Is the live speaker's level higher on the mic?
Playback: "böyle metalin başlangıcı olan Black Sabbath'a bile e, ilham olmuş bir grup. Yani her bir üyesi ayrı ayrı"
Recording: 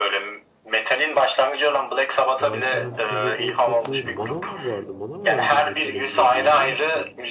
No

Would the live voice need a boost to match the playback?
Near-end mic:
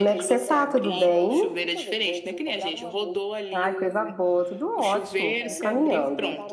No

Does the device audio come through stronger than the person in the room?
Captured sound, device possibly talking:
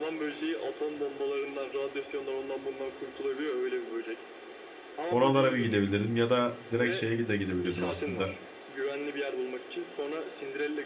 No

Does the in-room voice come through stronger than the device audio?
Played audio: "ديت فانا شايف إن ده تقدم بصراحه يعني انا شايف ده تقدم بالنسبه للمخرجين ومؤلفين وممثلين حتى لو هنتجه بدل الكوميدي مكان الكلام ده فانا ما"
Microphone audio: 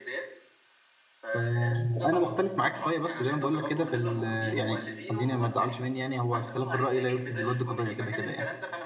Yes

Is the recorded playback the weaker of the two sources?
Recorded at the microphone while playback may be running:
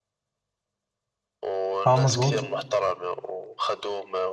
Yes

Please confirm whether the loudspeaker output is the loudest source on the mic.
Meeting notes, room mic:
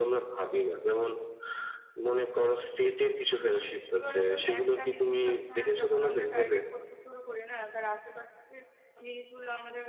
Yes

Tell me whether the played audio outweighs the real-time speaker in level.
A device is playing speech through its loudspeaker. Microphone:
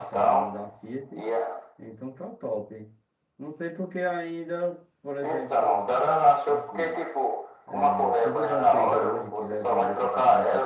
Yes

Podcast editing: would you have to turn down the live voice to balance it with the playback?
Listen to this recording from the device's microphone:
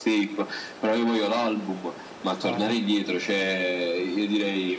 No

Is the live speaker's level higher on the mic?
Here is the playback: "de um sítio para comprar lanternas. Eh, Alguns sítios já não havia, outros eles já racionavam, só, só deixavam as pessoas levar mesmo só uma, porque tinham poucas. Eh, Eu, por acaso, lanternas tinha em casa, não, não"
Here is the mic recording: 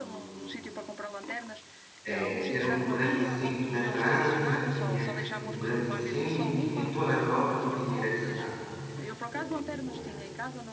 Yes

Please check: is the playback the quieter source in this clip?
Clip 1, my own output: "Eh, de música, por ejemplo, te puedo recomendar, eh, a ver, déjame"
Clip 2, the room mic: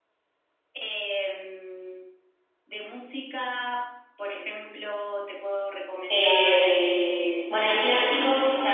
Yes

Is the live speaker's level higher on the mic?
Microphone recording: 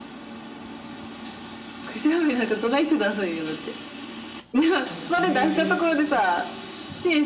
No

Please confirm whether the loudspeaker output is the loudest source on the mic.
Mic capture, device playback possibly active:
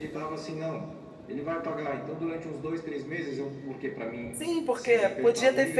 No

